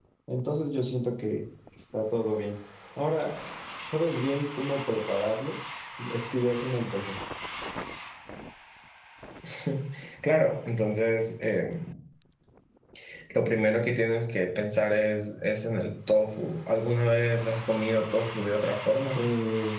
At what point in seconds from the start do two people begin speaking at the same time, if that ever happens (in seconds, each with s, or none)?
none